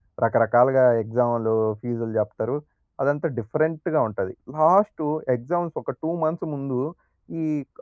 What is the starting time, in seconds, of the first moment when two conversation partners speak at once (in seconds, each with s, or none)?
none